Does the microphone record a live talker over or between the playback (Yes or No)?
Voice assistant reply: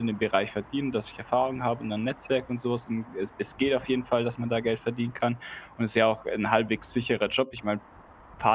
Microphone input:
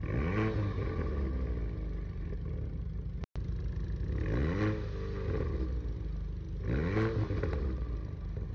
No